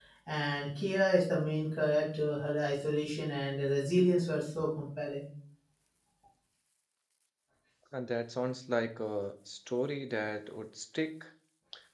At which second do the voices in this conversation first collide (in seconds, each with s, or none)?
none